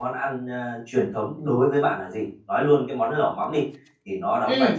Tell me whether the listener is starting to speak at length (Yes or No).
No